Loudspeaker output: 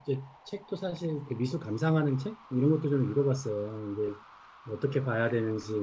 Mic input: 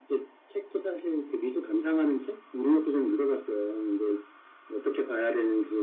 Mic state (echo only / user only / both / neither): echo only